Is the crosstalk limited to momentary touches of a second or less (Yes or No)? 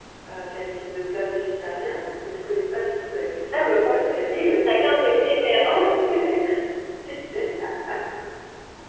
No